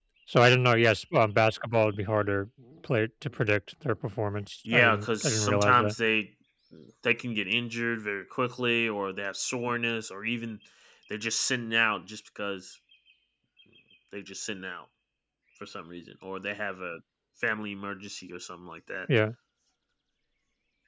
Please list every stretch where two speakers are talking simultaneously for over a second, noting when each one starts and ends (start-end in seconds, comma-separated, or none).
4.7-5.9